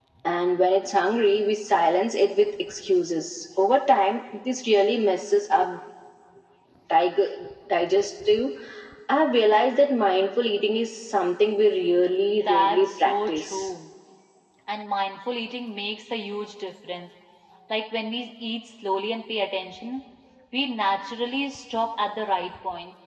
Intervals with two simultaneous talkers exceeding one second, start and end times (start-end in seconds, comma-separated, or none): 12.3-13.7